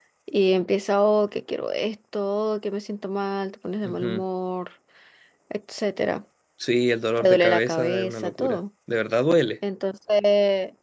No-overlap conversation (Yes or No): No